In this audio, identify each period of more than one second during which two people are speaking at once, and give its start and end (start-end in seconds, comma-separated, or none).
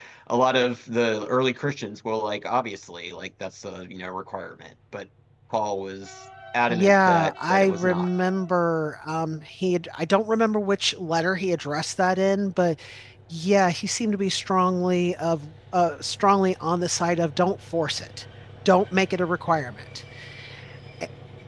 6.7-8.1